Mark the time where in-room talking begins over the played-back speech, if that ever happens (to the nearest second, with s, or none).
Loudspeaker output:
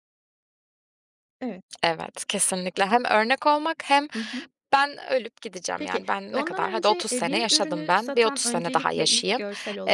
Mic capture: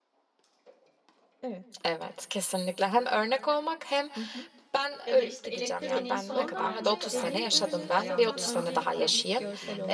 5 s